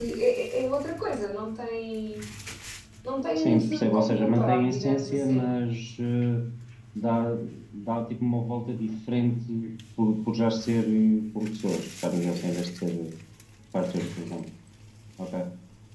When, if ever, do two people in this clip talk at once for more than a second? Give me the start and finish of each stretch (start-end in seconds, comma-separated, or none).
3.4-5.5